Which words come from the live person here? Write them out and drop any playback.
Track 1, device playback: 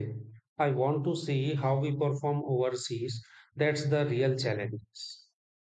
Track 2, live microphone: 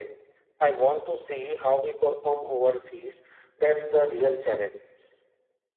none

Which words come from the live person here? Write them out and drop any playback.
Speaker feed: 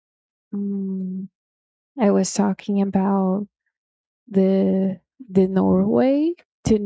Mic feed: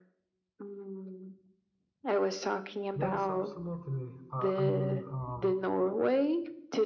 Yes, absolutely. I, I would um,

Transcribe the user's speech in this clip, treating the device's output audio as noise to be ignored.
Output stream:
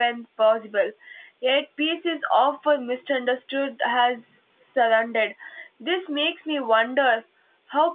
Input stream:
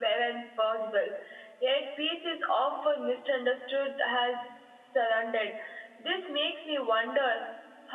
none

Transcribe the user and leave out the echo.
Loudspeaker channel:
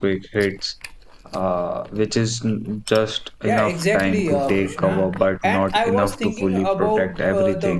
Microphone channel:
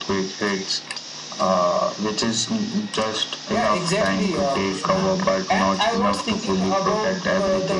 none

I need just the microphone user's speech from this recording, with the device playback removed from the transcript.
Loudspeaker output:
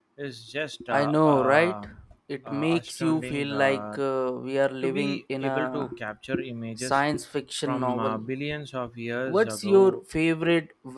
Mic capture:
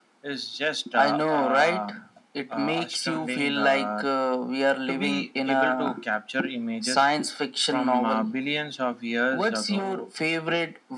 none

